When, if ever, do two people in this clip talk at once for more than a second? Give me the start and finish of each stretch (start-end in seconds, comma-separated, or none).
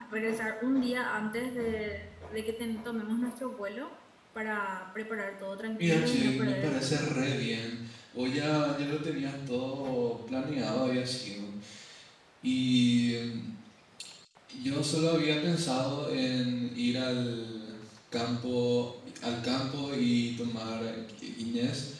5.8-7.1